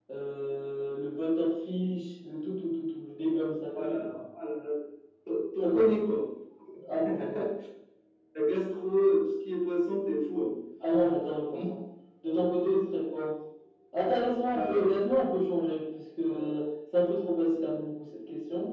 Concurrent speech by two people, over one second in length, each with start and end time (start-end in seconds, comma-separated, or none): none